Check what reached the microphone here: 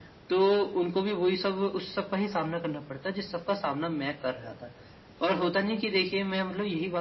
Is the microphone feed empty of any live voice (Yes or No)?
Yes